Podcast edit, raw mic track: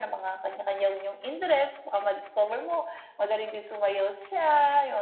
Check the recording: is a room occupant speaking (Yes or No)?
No